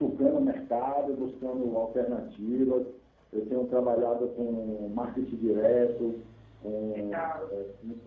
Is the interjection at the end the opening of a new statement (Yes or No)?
No